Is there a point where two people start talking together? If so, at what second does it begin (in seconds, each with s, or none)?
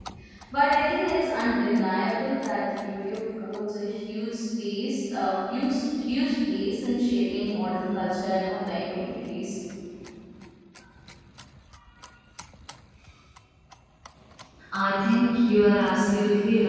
none